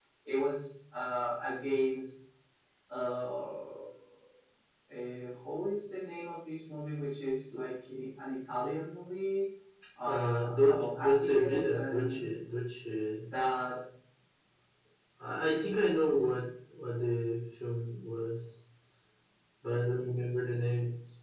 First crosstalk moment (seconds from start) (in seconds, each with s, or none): 10.1 s